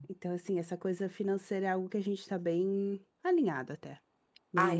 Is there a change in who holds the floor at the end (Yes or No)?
Yes